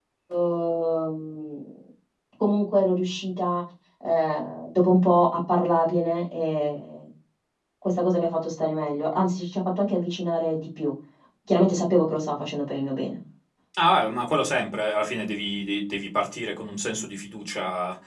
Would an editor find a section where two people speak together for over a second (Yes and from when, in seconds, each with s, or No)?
No